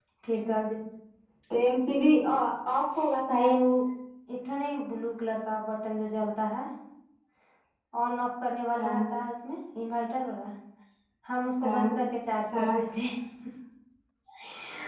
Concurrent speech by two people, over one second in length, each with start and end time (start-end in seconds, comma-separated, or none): none